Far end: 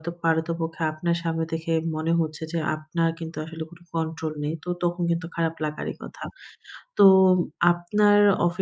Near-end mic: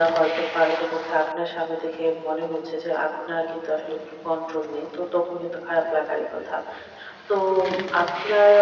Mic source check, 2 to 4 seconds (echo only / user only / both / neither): echo only